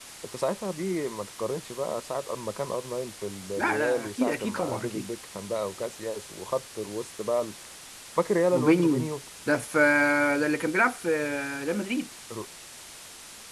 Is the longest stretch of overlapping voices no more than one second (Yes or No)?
No